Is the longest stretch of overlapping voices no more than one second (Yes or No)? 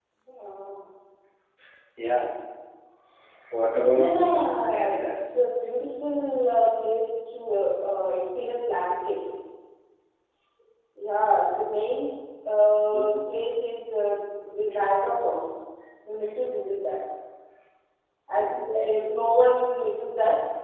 No